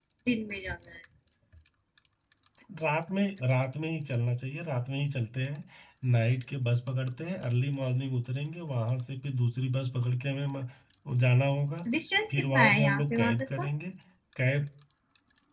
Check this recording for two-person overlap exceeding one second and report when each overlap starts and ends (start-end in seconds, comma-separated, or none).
12.3-13.7